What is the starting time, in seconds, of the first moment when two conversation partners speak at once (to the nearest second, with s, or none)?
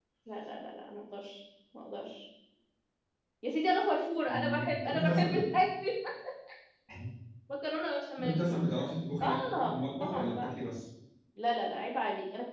4 s